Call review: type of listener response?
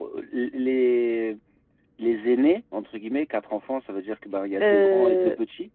taking over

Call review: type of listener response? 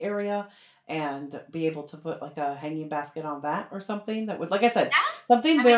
taking over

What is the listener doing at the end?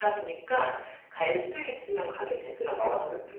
taking over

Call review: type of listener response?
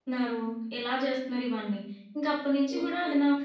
listening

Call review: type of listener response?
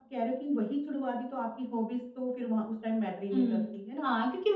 taking over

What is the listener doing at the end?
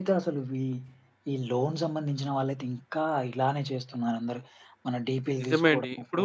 taking over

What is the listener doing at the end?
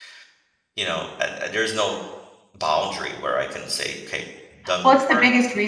taking over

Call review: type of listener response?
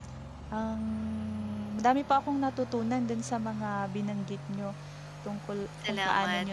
listening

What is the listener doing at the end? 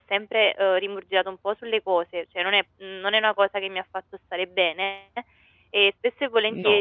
listening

